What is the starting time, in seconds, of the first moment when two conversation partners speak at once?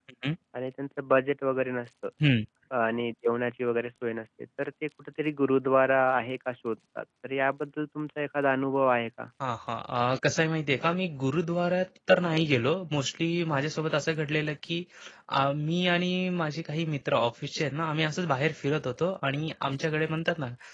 none

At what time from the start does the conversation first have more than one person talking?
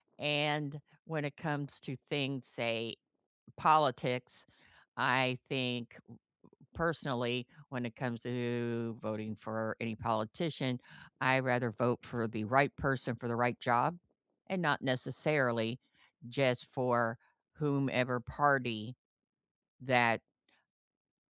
none

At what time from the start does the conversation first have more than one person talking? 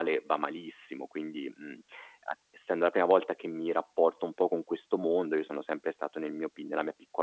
none

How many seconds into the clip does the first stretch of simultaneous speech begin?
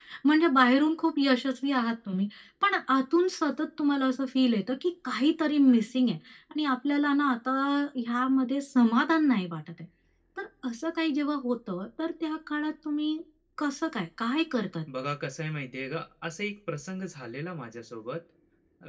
none

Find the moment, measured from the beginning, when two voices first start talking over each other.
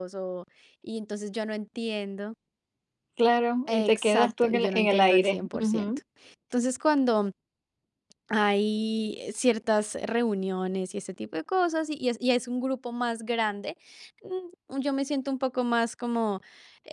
3.7 s

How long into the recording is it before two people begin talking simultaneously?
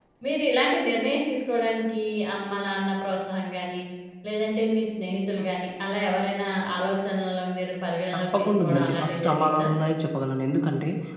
8.1 s

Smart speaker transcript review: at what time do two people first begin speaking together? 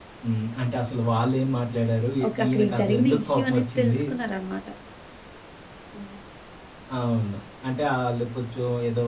2.2 s

